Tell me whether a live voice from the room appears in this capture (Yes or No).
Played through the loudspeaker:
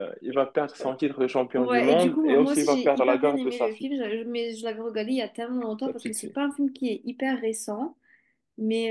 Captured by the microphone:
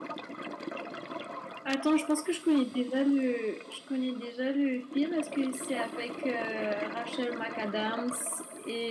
Yes